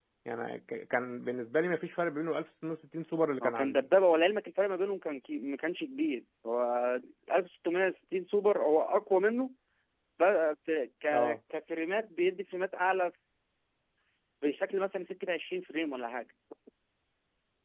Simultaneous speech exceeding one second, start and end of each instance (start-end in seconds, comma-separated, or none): none